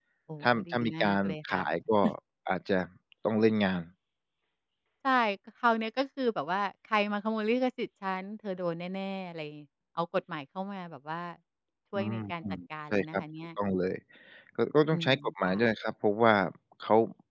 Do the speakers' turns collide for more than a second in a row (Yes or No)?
Yes